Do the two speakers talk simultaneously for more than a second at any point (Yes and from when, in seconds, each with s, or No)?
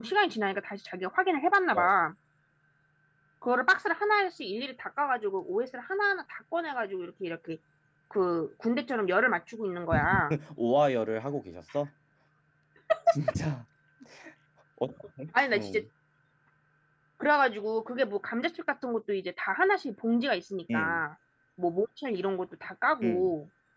No